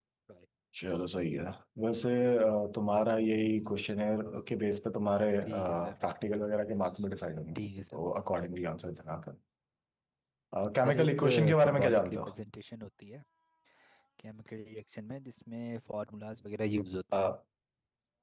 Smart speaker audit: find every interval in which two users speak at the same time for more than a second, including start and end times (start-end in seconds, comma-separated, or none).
10.8-12.2